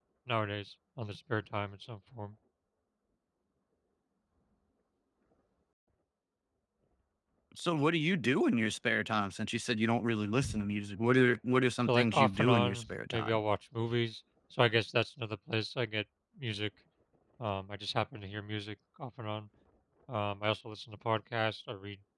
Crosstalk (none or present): present